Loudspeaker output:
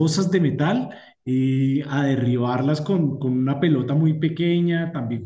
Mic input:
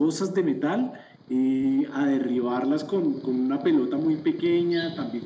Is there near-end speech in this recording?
No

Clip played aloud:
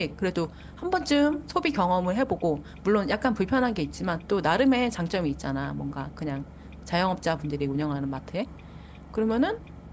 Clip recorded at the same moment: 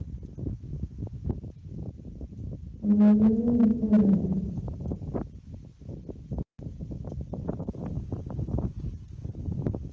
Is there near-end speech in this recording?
Yes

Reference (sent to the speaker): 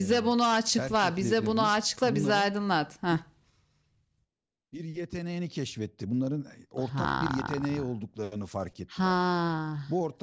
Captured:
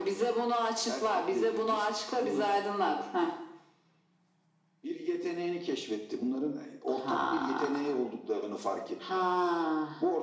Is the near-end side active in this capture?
No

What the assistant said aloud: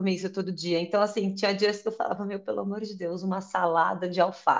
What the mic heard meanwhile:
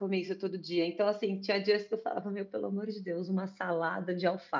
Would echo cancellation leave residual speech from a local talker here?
No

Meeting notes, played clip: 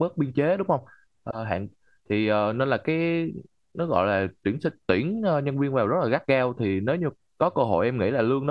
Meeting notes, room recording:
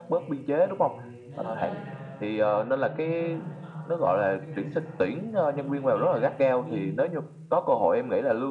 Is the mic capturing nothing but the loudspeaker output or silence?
No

